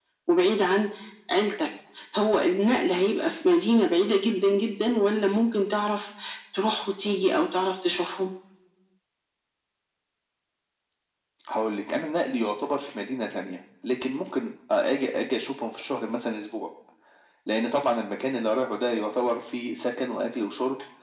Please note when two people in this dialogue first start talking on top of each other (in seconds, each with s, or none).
none